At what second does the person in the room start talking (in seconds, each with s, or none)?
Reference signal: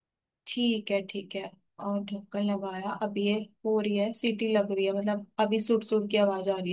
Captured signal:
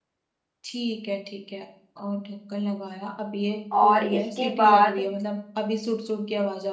3.7 s